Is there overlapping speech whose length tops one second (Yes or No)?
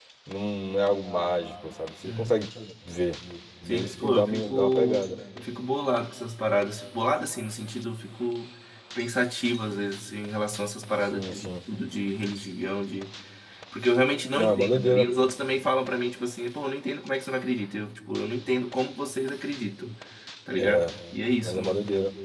Yes